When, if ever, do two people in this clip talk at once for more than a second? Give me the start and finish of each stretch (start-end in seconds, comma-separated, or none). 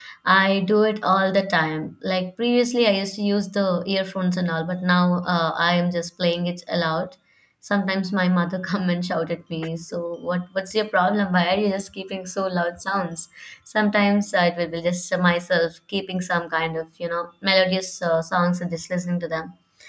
none